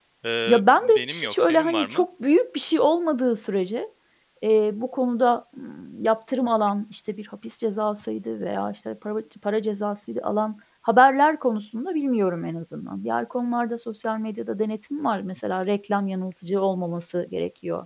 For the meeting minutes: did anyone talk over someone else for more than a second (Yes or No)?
Yes